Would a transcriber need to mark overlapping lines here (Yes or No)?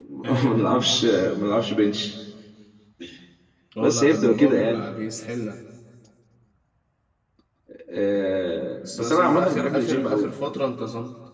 Yes